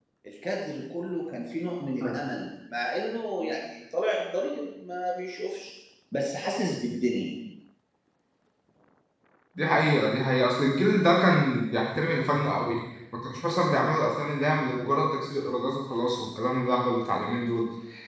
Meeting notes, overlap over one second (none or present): none